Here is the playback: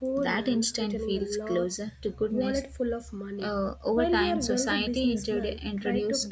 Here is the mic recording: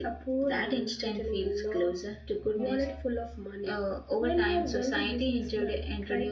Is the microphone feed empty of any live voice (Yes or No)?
Yes